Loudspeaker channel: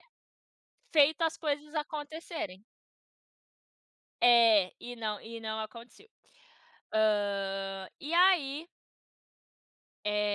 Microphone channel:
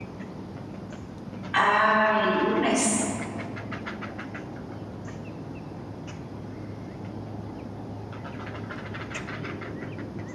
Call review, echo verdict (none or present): none